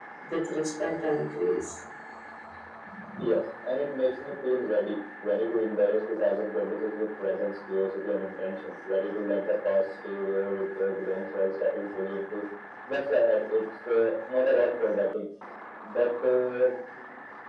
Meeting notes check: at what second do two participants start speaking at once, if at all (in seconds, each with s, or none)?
none